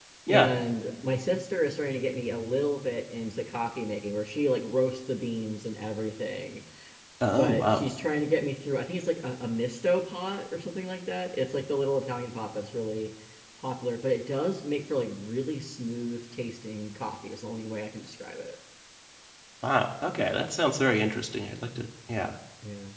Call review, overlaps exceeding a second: none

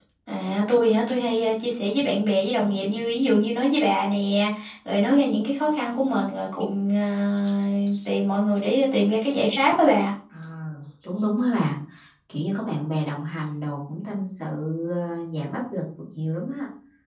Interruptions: none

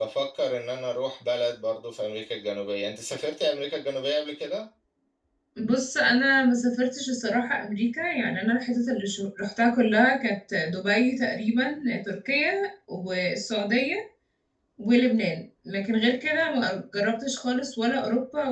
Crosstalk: none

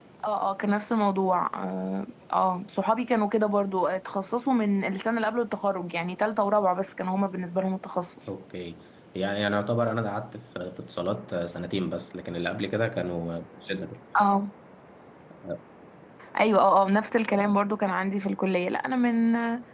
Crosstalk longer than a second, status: none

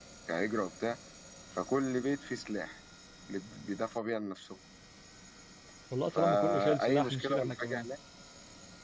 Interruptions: present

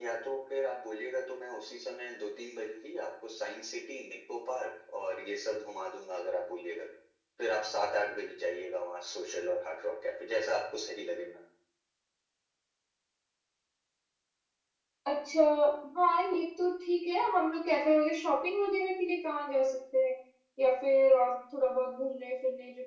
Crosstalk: none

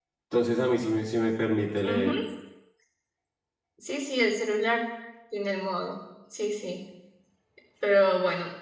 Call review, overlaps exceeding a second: none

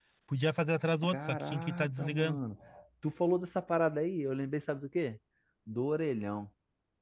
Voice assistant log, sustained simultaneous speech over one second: present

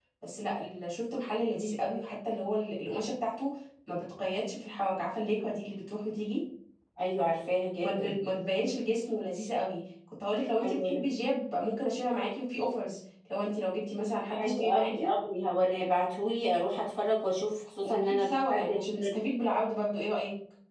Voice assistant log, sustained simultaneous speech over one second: present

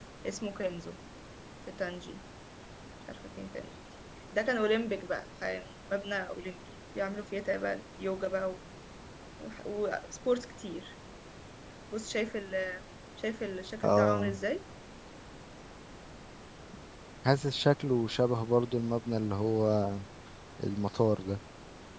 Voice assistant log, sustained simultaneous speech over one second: none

